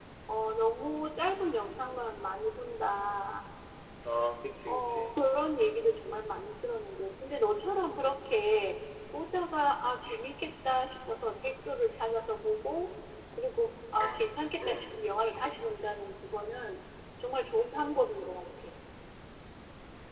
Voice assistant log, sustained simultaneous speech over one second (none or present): none